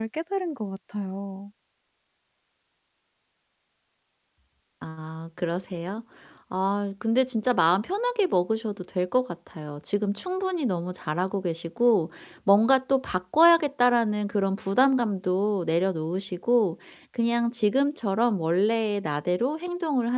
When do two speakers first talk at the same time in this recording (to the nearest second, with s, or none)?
none